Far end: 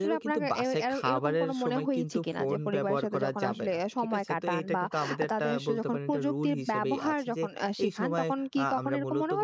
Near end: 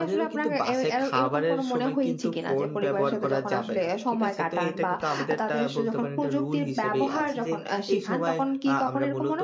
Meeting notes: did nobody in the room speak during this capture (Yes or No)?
Yes